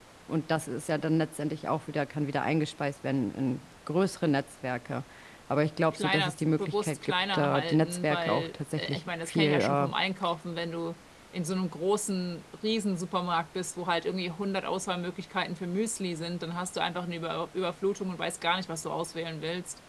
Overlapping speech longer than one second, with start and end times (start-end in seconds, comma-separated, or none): 5.9-9.9